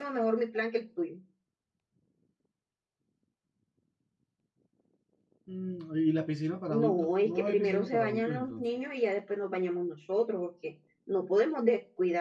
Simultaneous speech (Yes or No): Yes